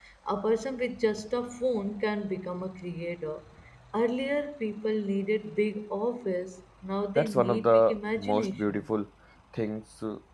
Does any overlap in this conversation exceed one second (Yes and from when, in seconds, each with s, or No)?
Yes, from 7.2 s